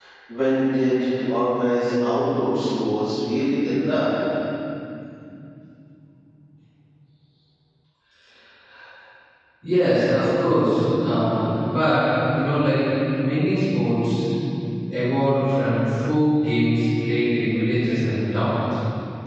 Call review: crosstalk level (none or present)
none